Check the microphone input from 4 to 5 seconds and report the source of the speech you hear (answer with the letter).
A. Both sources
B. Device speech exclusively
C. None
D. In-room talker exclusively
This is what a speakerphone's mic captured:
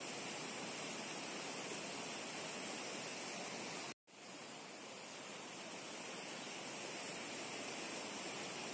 C